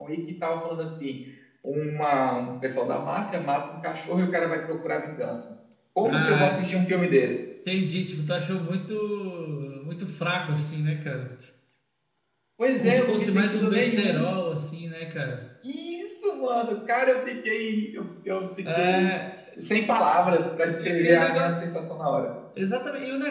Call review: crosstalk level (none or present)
present